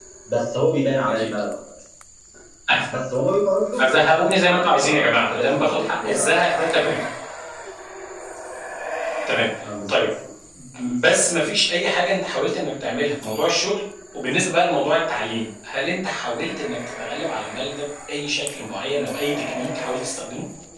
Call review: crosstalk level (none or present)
present